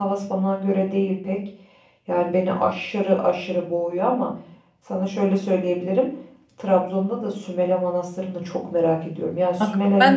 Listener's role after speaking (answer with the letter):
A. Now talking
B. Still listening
A